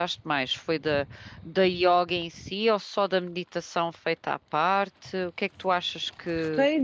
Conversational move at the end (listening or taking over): taking over